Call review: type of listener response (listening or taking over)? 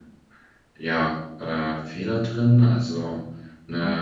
listening